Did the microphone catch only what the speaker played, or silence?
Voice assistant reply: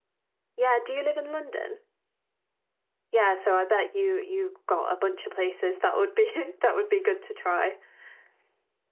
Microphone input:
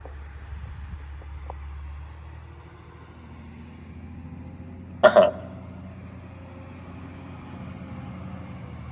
No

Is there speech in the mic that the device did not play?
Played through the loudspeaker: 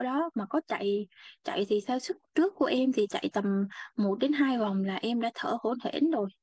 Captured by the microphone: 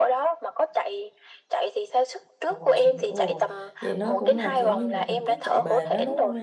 Yes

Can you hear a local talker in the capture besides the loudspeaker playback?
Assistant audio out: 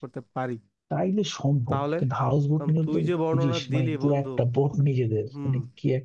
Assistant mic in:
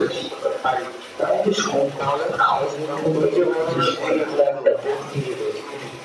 No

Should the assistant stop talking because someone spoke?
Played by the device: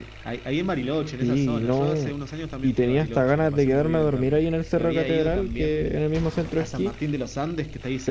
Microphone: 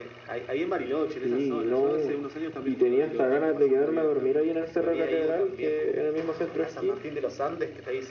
No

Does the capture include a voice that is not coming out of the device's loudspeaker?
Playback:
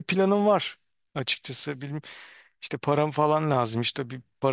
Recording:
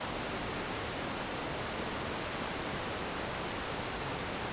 No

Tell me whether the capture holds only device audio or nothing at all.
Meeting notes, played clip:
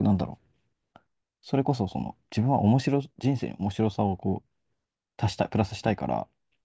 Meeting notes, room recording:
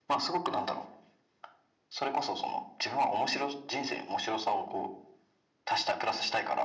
Yes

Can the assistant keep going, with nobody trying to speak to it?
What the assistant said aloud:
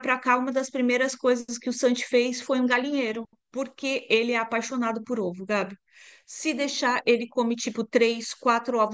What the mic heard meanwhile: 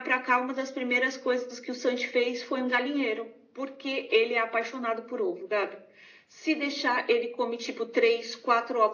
Yes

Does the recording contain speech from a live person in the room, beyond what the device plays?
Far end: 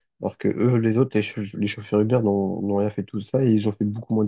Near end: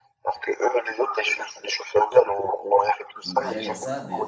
Yes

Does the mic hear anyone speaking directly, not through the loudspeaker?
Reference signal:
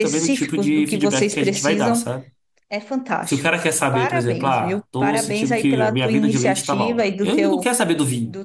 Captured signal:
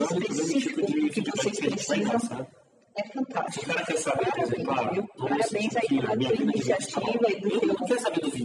No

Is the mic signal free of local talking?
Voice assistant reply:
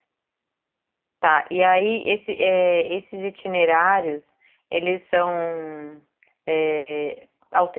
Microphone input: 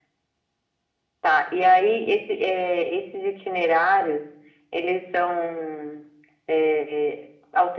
Yes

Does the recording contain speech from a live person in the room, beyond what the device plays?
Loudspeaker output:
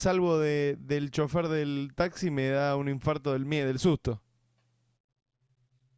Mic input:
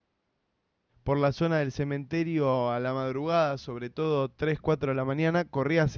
Yes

